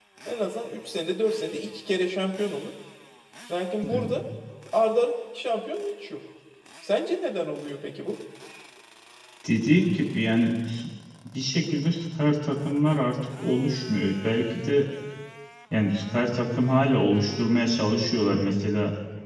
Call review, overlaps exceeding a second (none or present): none